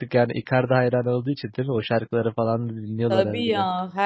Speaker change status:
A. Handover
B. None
A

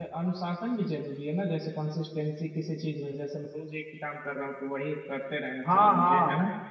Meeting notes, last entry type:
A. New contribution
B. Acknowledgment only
A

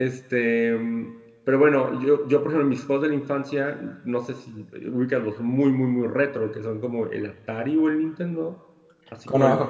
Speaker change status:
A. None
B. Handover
A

